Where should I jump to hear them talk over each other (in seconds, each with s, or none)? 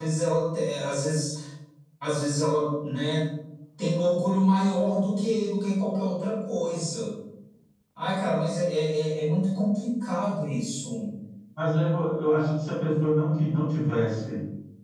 none